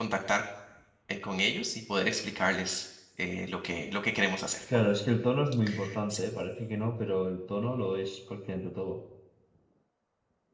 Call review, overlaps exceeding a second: none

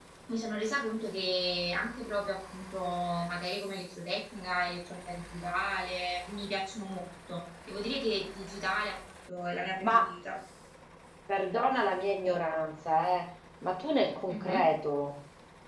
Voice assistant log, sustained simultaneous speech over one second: none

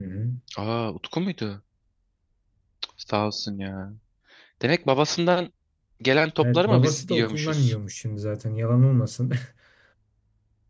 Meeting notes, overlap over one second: present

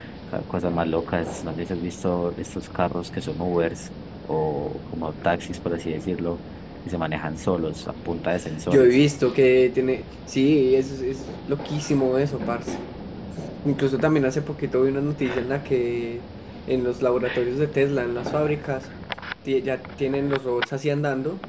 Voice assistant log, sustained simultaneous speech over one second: none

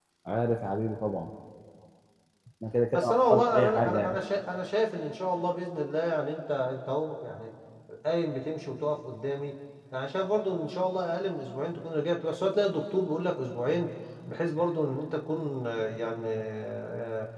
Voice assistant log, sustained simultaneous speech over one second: present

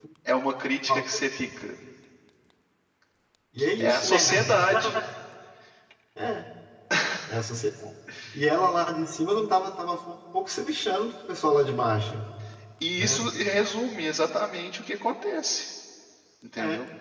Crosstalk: present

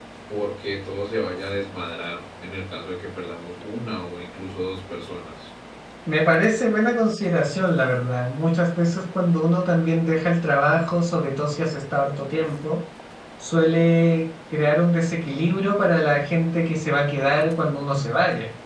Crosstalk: none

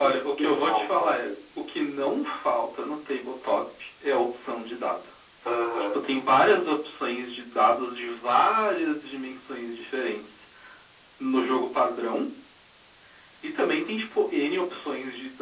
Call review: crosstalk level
present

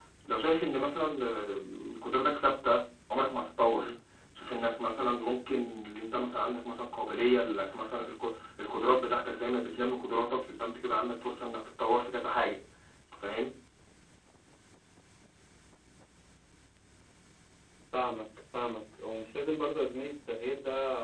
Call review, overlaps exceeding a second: none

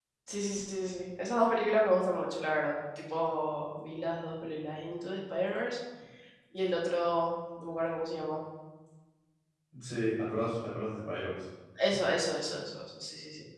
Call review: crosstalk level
none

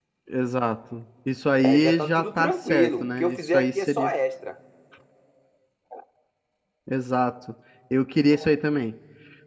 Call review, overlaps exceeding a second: present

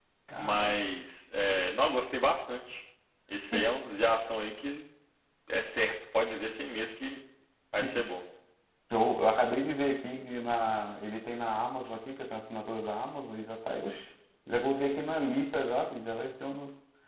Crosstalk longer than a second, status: none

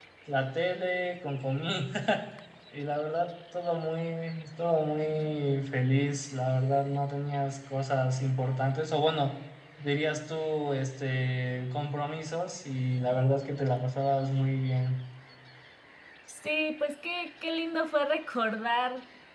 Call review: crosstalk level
none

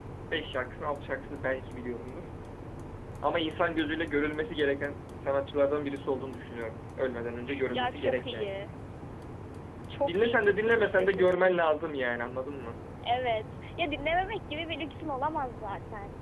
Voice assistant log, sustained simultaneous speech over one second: present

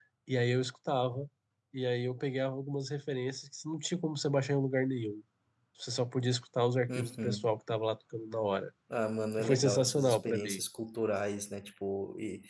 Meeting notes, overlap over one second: present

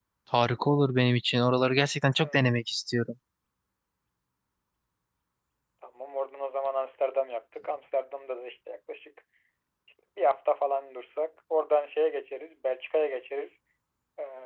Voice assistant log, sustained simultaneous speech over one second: none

